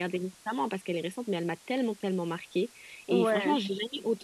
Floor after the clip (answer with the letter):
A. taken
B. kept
B